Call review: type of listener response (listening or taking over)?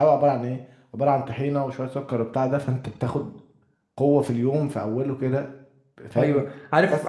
taking over